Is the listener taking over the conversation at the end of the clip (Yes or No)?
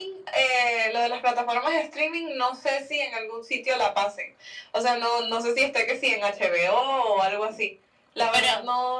No